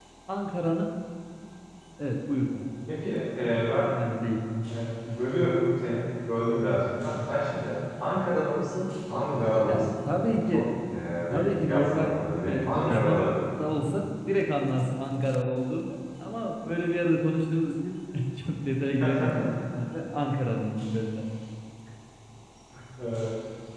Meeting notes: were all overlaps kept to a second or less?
No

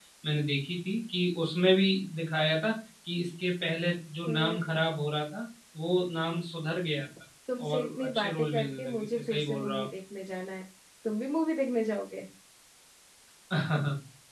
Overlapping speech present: Yes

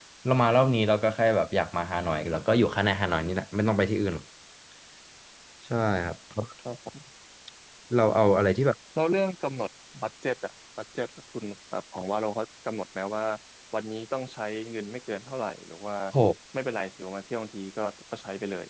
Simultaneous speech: No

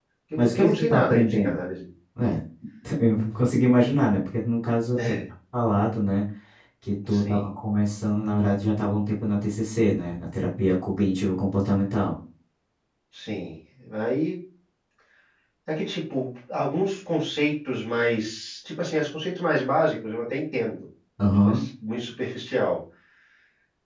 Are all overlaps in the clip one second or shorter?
No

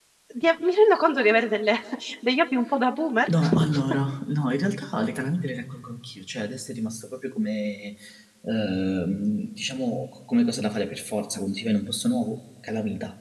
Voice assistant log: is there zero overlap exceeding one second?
Yes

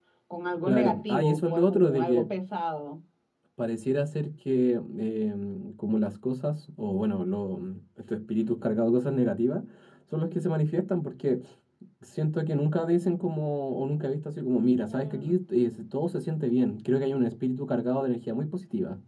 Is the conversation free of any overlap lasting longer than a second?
No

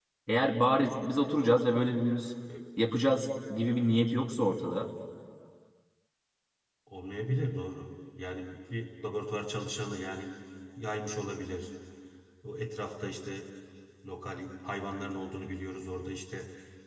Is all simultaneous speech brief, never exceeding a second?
Yes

